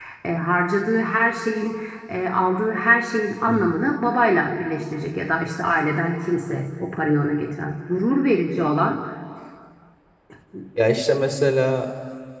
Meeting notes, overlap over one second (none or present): none